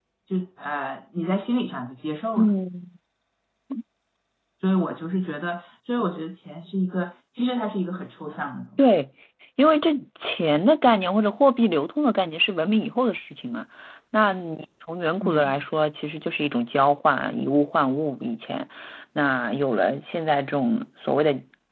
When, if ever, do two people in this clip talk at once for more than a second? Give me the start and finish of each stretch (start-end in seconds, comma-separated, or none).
none